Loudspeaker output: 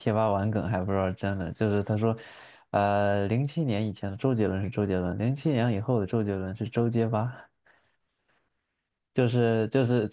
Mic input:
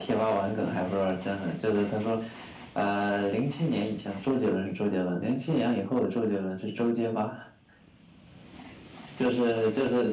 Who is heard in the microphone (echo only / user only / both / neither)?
echo only